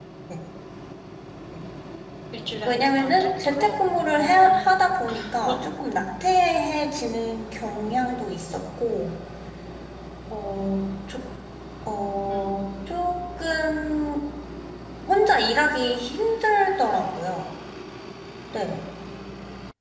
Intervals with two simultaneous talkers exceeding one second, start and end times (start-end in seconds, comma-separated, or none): 2.6-4.7